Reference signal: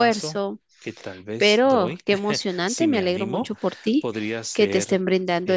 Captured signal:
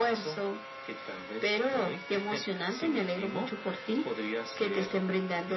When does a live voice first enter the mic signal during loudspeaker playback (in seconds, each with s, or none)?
none